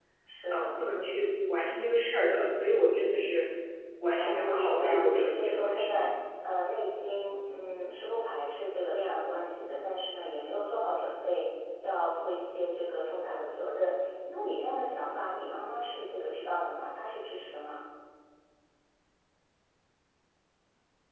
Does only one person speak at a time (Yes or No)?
No